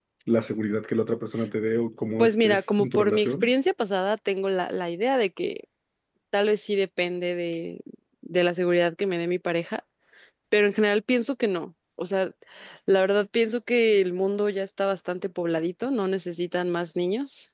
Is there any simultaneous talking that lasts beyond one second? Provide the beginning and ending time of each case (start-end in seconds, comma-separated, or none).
2.2-3.5